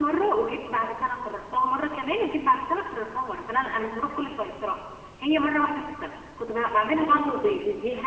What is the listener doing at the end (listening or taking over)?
taking over